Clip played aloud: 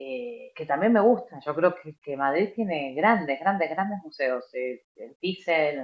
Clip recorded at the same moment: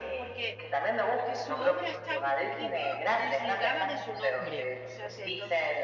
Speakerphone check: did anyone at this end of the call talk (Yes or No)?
Yes